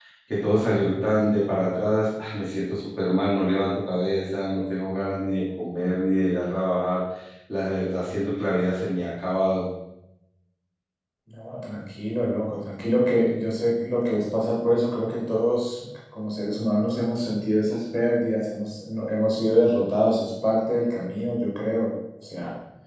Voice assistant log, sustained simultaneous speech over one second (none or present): none